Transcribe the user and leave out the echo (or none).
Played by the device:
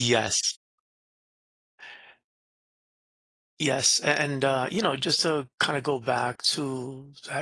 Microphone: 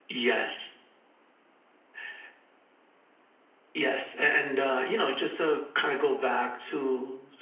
none